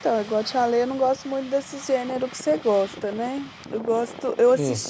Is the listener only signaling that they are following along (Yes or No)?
Yes